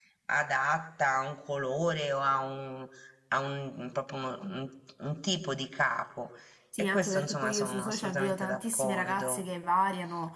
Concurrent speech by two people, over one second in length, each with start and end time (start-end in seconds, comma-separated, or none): 6.8-9.4